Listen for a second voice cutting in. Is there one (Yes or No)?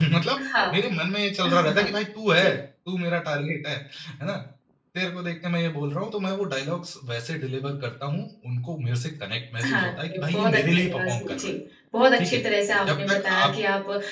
Yes